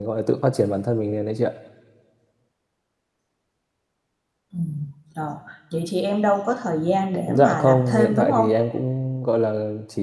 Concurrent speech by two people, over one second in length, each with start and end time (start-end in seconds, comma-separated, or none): 7.3-8.5